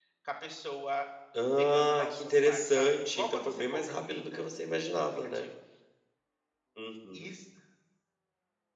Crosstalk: present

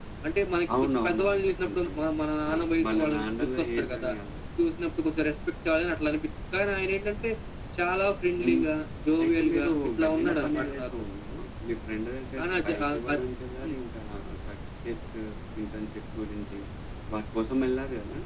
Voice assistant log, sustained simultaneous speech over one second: present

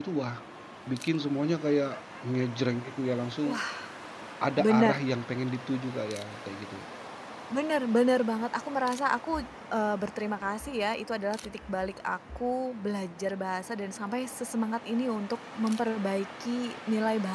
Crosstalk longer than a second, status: none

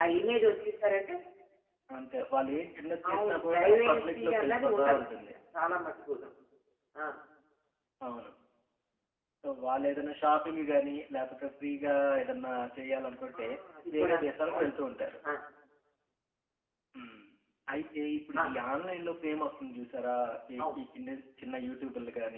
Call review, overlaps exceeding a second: present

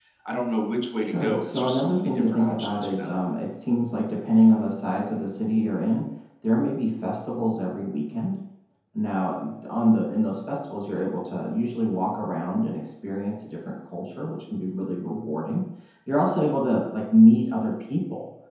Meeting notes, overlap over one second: present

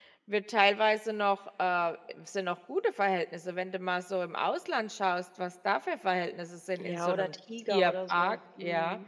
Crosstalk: present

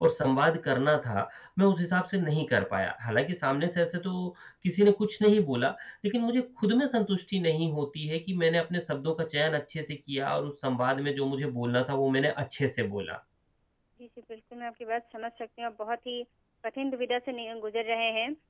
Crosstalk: none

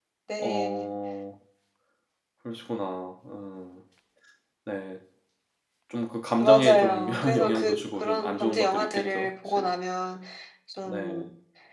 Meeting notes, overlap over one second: present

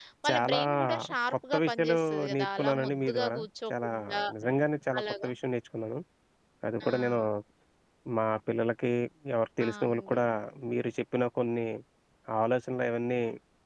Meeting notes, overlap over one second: present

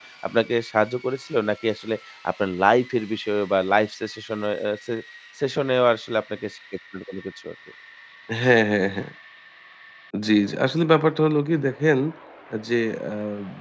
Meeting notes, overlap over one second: none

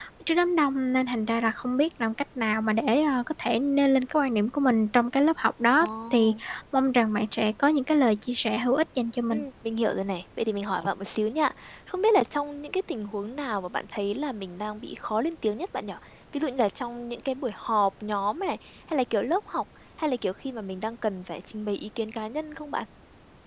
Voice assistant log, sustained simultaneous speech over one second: none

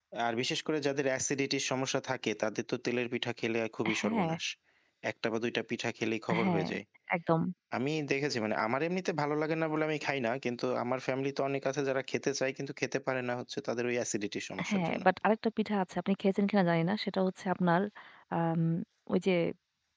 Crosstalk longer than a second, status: none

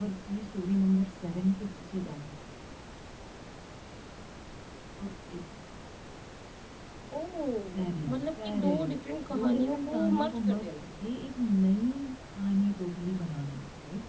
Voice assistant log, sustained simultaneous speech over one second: present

